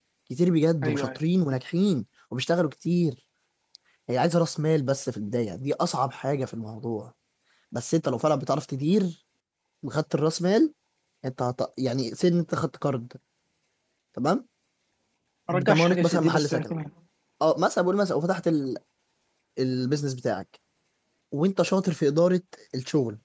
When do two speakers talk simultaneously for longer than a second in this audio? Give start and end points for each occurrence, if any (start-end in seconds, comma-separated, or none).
15.5-16.7